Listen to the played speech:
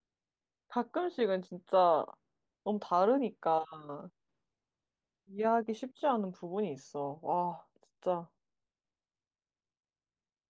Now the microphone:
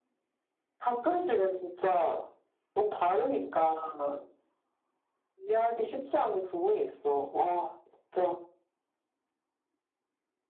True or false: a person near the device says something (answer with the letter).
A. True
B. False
B